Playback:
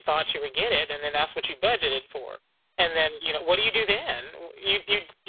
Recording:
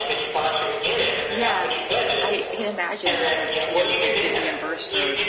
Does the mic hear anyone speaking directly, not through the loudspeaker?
Yes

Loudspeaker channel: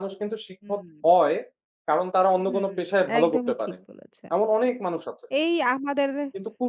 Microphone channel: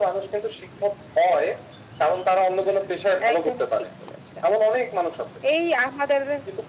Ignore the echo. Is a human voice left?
No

